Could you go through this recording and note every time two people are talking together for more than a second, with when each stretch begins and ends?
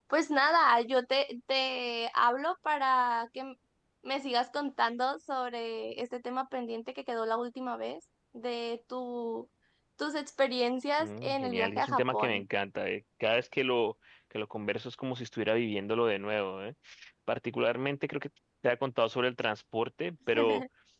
11.0-12.4

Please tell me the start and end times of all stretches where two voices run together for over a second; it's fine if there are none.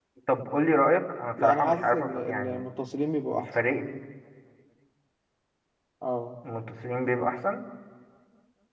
1.4-2.6

